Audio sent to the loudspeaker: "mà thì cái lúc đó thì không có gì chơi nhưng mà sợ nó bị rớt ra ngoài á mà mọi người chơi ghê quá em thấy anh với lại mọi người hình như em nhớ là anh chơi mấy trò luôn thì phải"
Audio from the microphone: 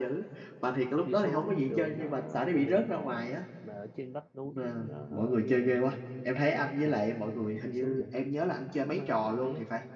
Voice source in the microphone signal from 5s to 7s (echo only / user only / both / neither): both